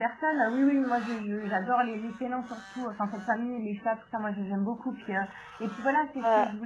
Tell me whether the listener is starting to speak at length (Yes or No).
No